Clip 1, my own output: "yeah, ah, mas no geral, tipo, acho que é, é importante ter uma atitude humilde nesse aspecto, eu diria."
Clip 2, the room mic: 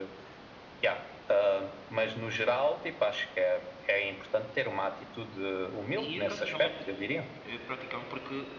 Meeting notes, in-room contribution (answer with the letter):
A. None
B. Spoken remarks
B